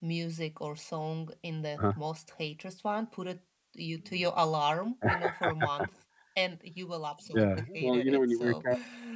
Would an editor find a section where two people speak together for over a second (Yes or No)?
Yes